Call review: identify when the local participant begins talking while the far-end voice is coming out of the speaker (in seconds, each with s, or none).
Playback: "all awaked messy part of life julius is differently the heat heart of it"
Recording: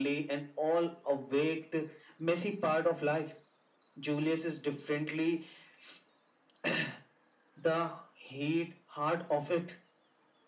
none